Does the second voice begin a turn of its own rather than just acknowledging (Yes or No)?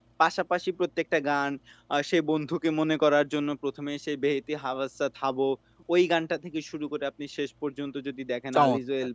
No